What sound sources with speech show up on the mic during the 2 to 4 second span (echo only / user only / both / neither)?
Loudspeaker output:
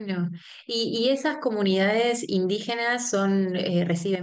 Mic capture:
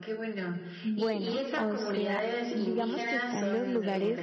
both